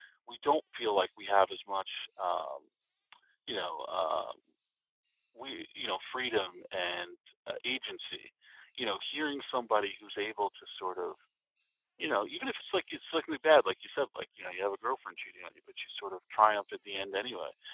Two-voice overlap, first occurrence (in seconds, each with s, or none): none